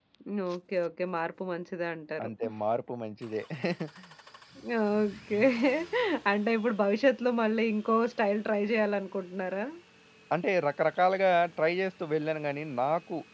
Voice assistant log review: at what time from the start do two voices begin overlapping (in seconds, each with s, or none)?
none